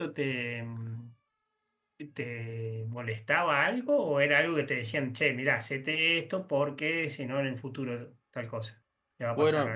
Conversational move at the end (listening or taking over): taking over